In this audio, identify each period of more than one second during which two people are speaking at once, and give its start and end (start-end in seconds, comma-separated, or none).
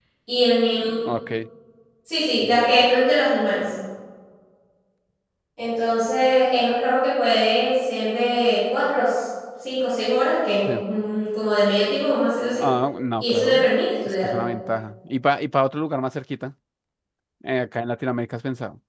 none